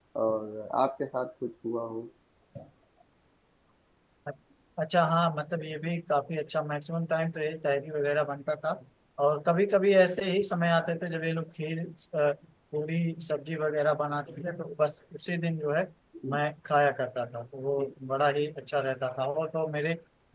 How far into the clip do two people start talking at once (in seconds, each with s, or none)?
none